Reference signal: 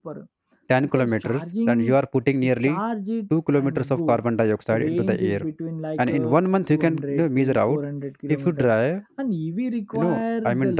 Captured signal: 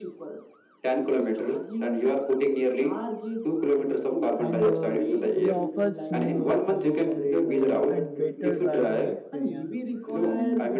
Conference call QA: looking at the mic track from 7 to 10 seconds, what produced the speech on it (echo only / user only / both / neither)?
both